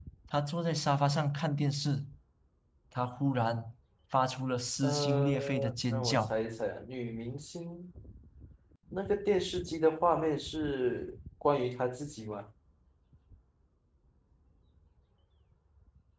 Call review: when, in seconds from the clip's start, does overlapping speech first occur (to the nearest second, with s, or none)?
5 s